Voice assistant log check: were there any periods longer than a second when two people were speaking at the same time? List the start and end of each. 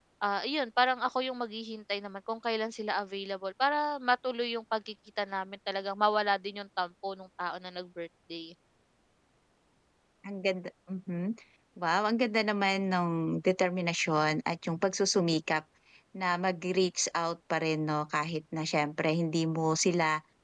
none

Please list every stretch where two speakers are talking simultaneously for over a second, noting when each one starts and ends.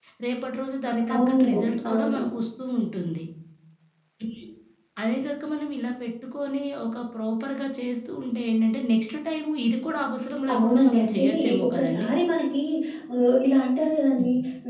10.5-12.1

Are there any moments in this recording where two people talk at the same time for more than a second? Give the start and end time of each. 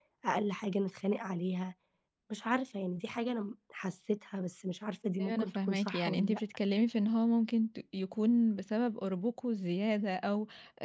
5.2-6.4

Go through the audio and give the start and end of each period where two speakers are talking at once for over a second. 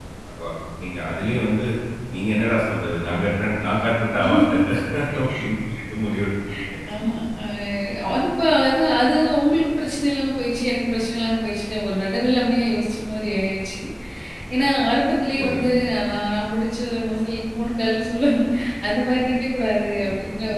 none

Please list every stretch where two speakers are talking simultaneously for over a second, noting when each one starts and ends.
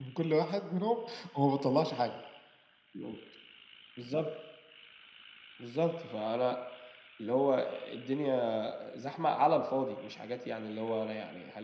none

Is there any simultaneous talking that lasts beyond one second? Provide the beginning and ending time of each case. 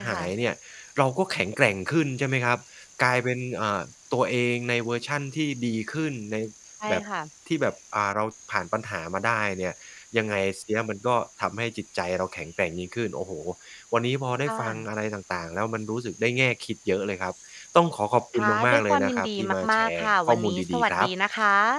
18.4-21.1

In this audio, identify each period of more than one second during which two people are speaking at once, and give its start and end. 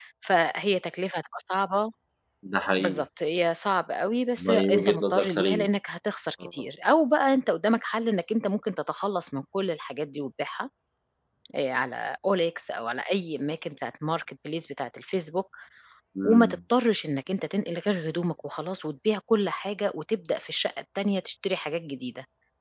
4.4-5.7

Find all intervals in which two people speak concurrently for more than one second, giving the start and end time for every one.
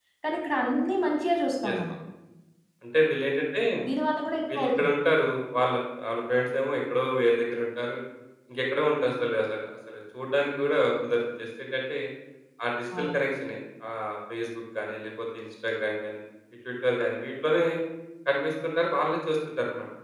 none

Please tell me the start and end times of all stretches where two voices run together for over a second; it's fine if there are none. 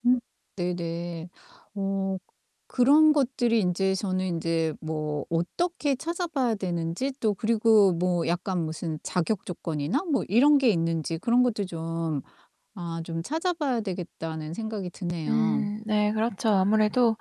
none

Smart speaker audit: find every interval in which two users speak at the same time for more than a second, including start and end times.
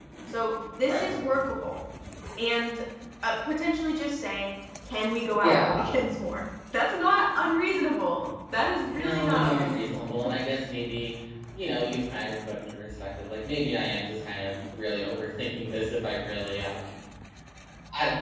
8.9-10.3

